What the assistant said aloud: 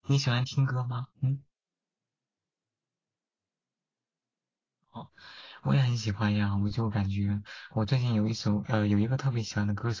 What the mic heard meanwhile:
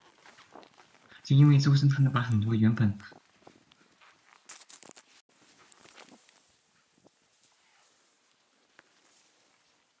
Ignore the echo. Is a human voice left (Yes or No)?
Yes